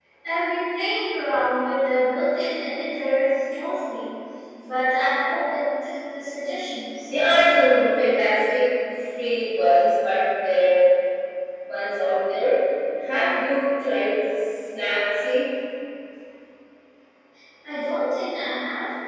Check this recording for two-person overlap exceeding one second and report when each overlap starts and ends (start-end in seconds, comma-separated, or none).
none